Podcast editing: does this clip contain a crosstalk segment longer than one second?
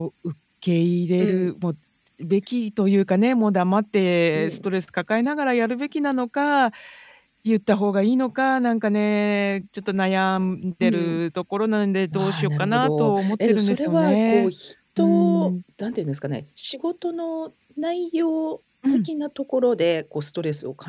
Yes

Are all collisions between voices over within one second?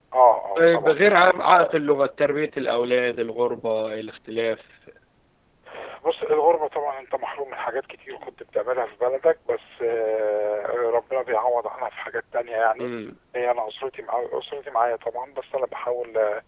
Yes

